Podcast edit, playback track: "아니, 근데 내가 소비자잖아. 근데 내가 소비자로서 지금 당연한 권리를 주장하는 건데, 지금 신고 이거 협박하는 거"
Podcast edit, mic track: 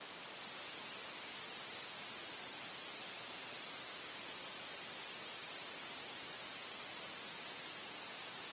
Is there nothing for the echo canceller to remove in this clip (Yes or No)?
Yes